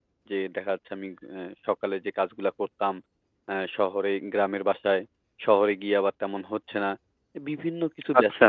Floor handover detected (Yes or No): No